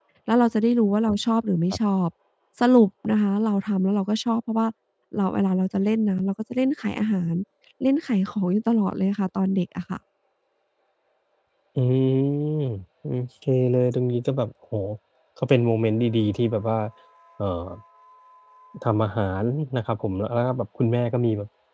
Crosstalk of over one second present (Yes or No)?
No